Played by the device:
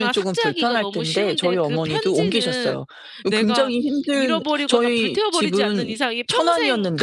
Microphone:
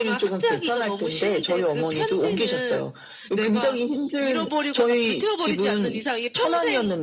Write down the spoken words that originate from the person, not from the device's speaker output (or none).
none